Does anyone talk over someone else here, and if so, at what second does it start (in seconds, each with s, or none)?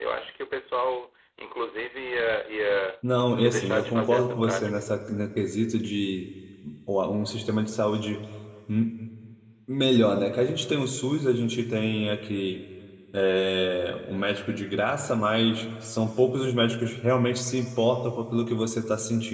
3.4 s